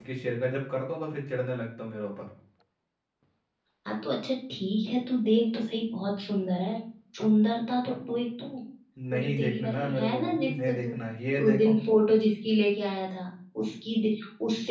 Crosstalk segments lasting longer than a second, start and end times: 9.1-10.9

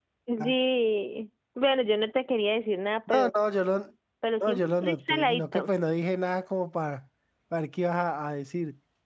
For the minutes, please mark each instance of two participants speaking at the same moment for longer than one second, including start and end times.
4.4-5.7

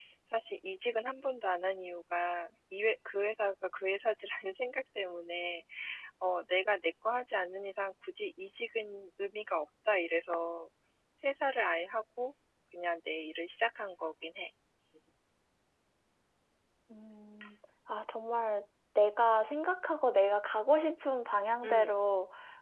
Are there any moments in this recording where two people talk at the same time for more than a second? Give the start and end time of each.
none

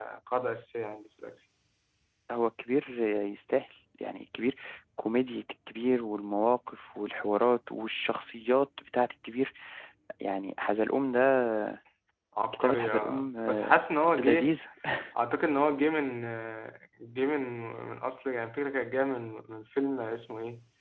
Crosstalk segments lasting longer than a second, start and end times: 12.5-13.8

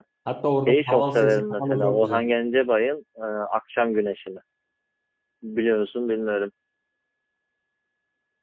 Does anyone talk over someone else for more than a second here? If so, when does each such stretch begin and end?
0.7-2.3

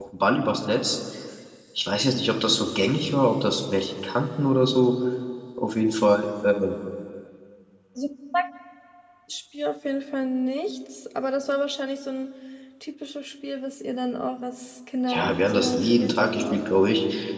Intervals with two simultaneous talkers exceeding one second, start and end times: 15.1-16.6

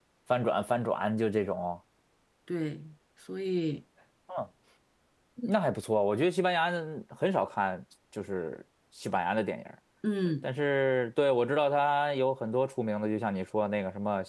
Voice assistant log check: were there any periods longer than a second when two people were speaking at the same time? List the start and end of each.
none

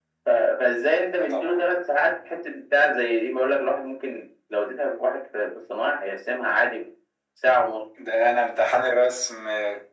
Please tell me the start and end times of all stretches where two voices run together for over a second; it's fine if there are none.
none

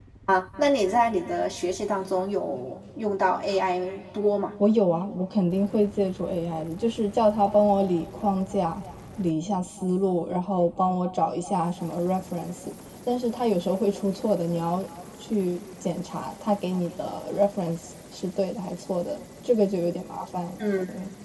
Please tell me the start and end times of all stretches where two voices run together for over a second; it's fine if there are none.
none

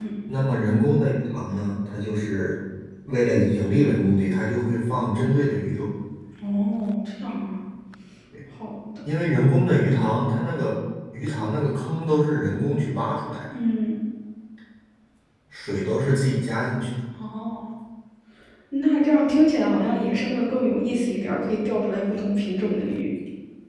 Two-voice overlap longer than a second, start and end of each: none

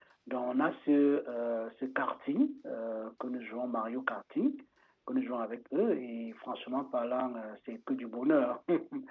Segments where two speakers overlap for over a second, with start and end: none

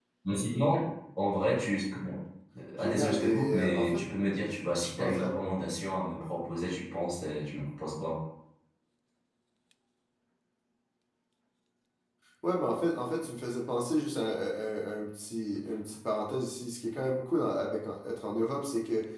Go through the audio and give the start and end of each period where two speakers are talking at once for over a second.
2.8-4.0

